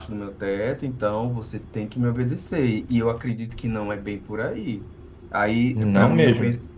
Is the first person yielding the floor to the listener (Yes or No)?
No